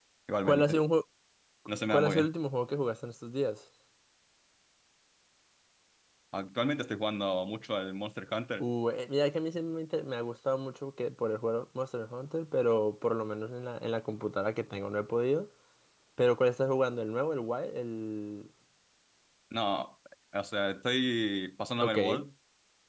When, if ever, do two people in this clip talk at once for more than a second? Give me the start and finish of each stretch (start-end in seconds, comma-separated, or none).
none